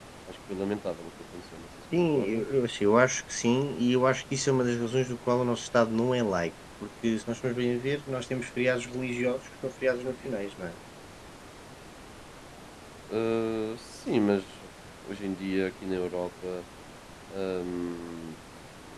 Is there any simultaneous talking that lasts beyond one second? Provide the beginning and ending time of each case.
none

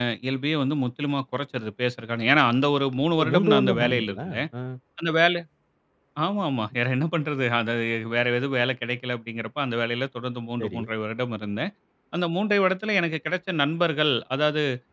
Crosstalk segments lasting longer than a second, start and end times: 3.2-4.4

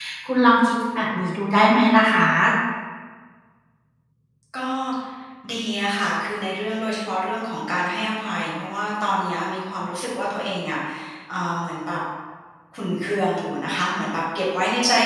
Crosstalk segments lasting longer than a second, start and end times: none

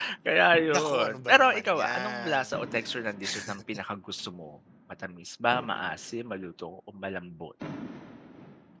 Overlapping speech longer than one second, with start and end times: 0.7-2.5

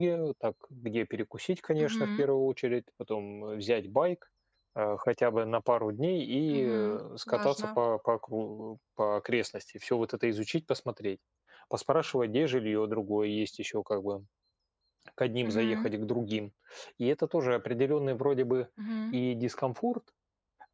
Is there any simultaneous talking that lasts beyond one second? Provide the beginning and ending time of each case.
none

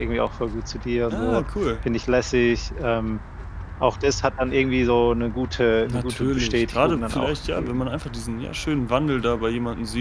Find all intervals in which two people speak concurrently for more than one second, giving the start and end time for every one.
5.9-7.8

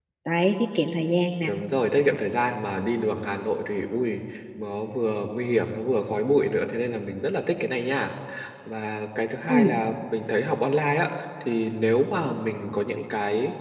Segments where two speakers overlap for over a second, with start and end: none

